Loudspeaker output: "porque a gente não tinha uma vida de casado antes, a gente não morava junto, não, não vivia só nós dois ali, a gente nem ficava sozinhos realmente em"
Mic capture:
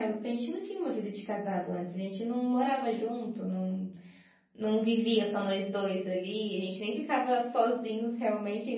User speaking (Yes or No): No